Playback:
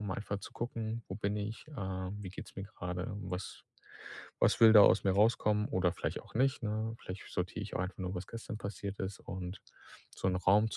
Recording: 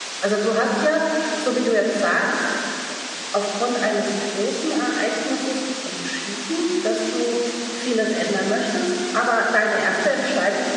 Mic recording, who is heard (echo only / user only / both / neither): user only